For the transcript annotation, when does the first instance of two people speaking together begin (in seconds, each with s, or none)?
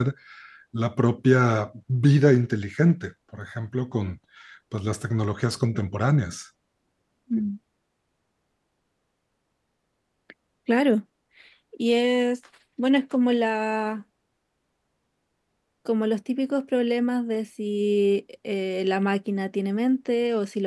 none